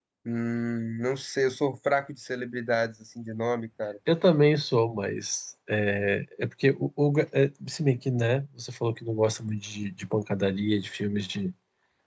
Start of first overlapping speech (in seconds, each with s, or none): none